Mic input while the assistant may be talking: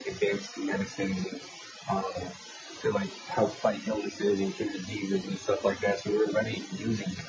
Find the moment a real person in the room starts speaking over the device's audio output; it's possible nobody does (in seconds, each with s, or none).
none